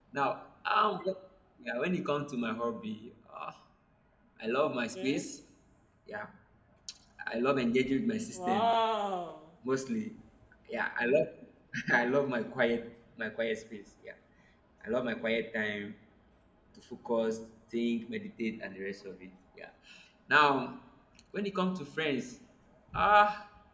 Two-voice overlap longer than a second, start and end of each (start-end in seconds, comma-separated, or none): none